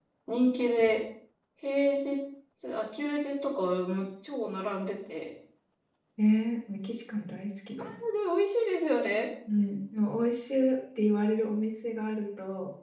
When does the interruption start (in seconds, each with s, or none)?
none